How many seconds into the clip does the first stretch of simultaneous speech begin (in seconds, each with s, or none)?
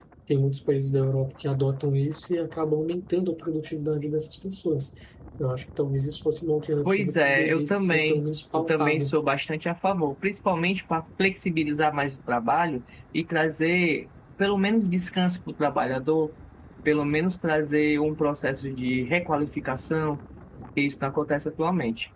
6.8 s